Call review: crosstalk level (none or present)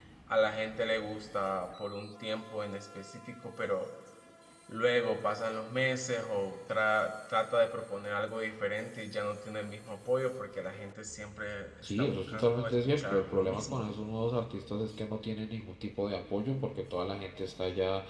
present